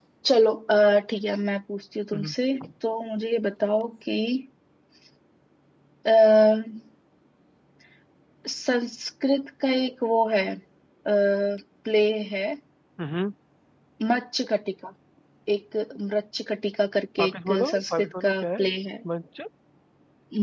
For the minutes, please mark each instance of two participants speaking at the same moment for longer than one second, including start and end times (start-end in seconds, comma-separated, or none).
17.2-18.6